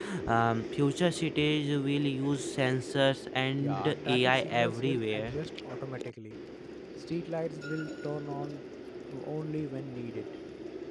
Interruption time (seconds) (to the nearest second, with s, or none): 4 s